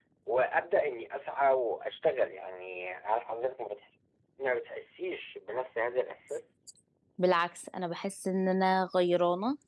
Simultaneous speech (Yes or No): No